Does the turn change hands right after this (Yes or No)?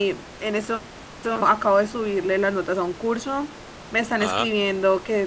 No